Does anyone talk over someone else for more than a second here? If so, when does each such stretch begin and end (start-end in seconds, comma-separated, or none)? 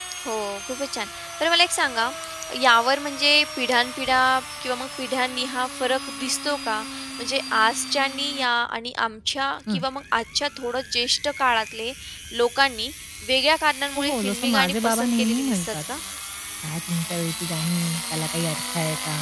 14.0-15.7